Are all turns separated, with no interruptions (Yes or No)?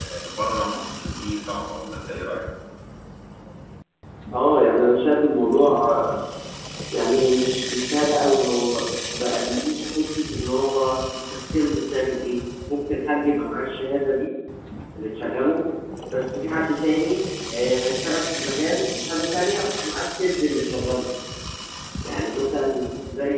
Yes